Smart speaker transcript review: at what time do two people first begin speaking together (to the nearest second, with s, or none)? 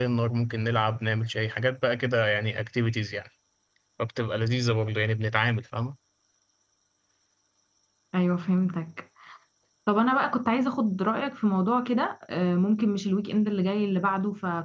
none